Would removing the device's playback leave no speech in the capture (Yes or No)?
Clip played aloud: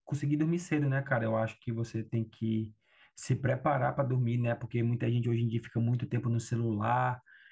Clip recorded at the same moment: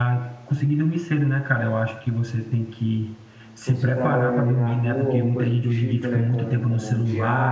No